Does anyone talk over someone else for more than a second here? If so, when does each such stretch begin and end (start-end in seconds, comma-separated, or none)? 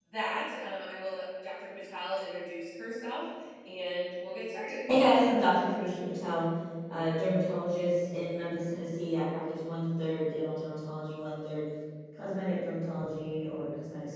none